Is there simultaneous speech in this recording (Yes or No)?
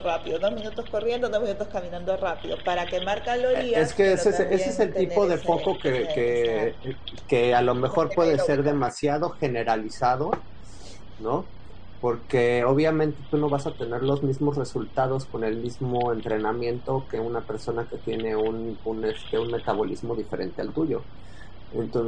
Yes